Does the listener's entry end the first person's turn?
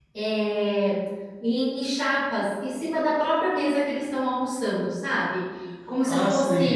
Yes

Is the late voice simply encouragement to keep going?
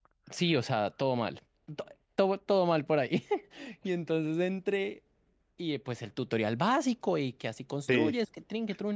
Yes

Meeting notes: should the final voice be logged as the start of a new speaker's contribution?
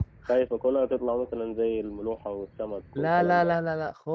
Yes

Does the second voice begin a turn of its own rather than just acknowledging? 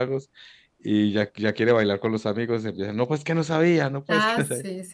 Yes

